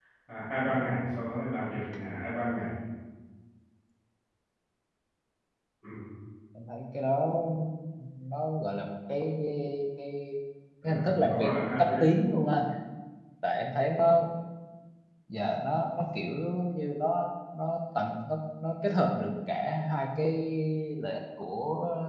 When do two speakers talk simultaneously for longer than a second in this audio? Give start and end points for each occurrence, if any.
10.8-12.2

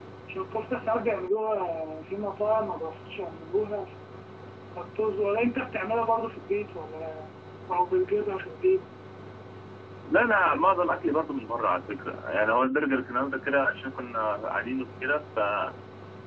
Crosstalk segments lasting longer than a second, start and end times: none

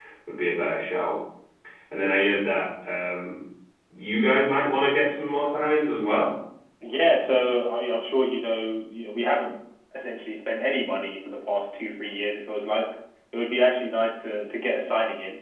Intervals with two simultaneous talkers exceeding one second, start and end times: none

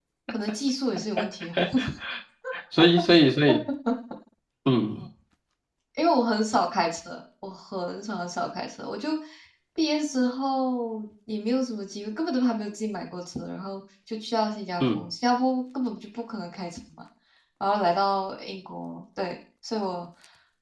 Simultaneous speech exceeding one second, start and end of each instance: none

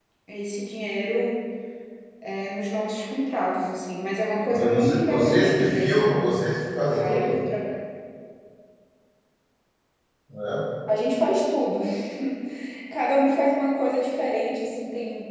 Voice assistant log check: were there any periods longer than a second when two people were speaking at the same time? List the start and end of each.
4.5-6.2

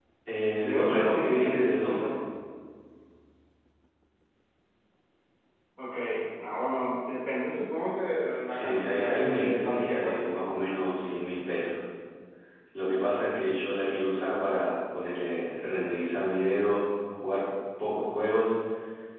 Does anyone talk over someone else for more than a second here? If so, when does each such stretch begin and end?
0.6-2.1, 8.5-10.6

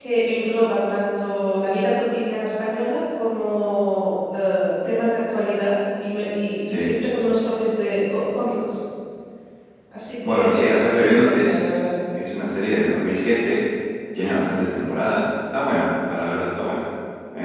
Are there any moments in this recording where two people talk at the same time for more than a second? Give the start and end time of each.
10.3-11.6

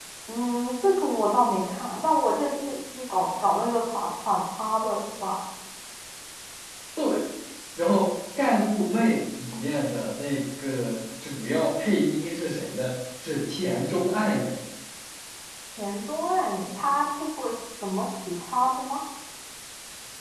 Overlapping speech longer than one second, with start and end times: none

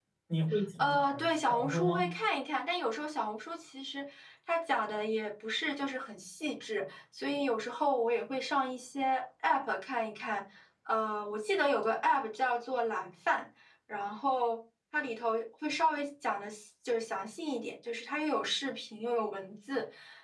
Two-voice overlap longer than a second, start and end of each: 0.8-2.0

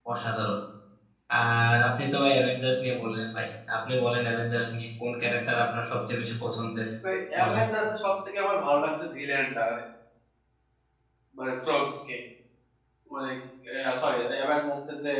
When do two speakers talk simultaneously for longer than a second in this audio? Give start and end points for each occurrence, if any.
none

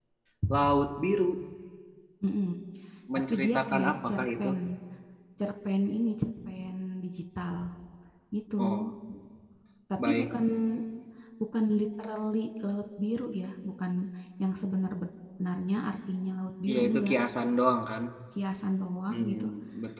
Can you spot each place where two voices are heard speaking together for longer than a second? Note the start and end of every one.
3.3-4.5

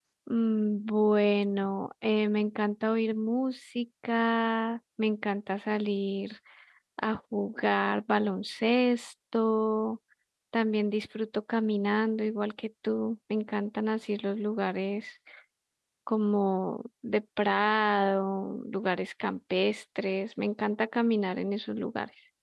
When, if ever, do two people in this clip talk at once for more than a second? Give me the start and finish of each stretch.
none

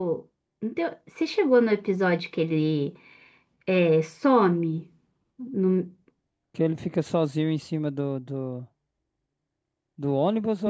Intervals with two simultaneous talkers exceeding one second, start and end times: none

